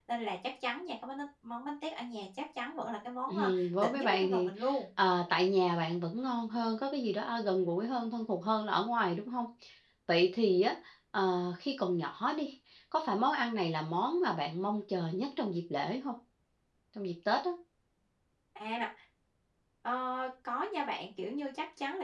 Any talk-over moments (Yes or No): Yes